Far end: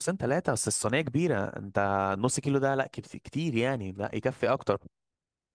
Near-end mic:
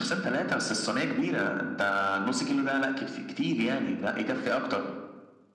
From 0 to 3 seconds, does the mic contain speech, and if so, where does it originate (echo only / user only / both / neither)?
echo only